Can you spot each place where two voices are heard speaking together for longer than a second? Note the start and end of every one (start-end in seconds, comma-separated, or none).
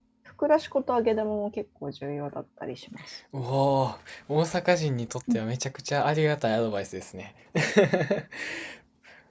none